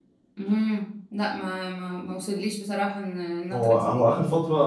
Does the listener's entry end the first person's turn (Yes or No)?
Yes